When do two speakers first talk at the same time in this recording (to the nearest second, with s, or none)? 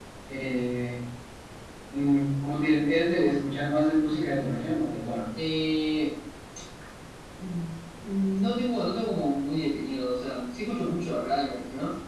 none